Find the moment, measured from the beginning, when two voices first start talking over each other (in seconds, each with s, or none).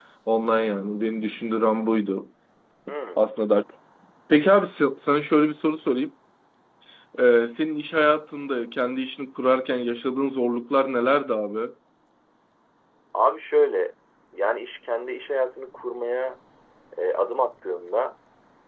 none